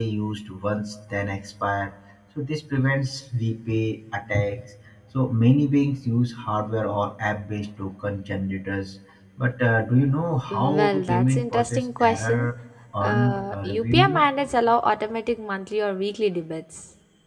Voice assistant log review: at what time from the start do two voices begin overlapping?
11 s

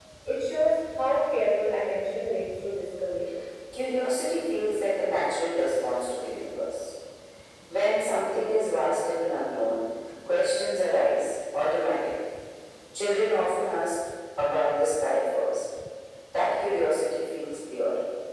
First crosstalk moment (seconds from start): none

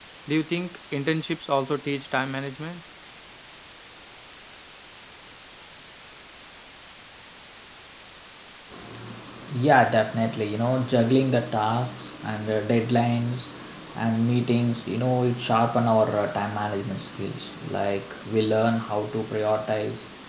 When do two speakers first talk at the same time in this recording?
none

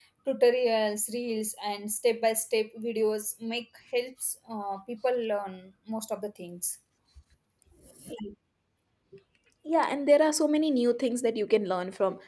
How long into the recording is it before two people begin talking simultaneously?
none

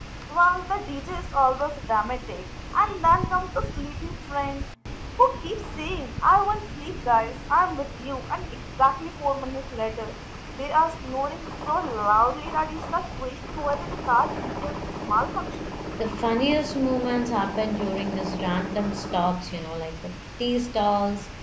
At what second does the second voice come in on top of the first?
none

